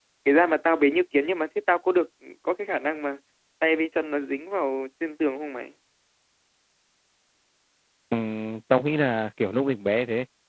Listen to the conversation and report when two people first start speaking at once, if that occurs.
none

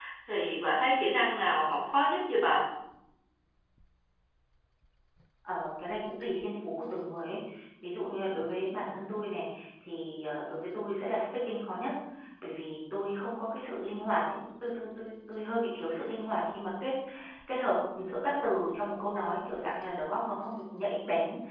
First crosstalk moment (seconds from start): none

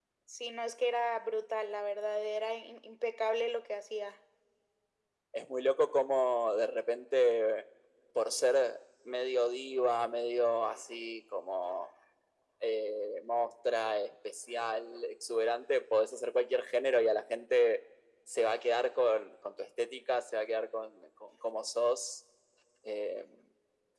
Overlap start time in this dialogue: none

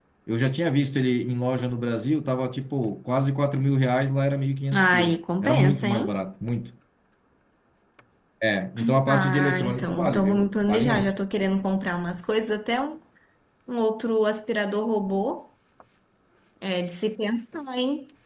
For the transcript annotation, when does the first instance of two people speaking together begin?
4.7 s

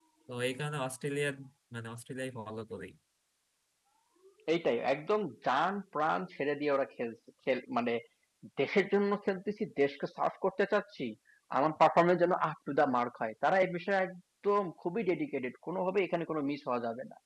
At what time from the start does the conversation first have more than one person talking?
none

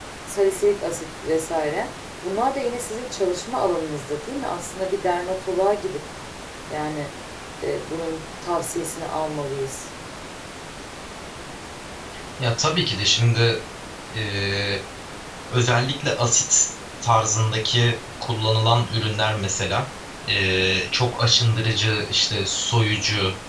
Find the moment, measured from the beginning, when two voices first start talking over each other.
none

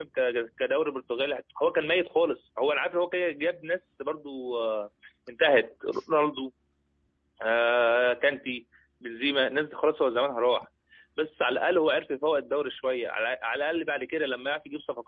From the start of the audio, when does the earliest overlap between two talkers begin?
none

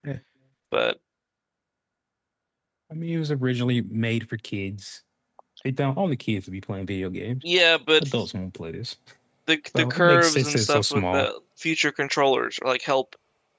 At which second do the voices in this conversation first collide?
9.8 s

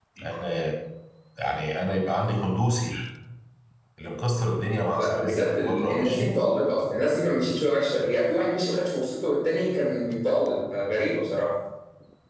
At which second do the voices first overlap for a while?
5.0 s

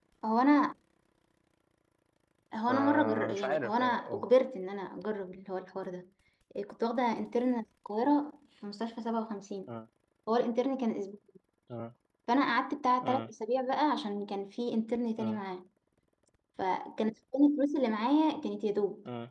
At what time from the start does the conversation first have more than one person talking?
2.7 s

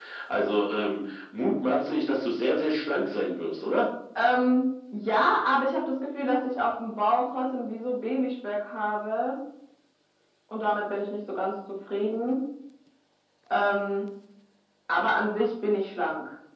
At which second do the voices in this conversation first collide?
none

